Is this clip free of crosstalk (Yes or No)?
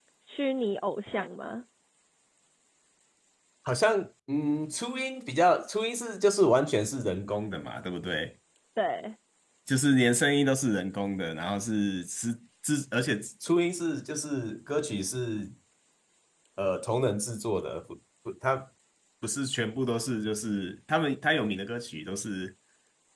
Yes